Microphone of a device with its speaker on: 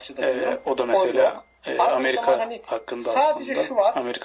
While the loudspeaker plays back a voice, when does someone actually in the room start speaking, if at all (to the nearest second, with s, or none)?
none